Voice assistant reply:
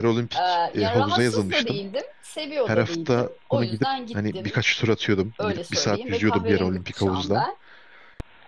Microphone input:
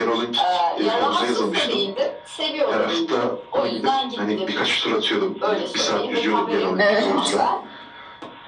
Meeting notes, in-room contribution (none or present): present